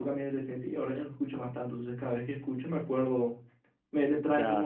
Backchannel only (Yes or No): Yes